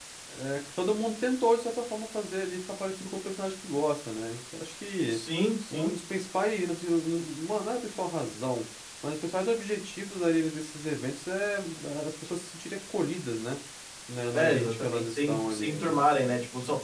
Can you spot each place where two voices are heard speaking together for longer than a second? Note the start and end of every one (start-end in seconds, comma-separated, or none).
14.3-15.9